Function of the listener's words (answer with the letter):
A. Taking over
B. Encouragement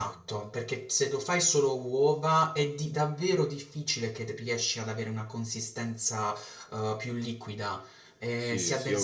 A